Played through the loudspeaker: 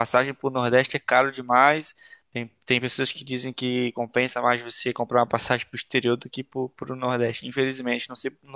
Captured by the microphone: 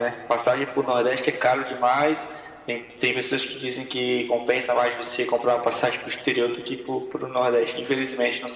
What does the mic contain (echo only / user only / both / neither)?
echo only